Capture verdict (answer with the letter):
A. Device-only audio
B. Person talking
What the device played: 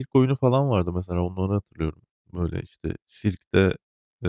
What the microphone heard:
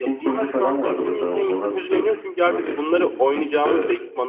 B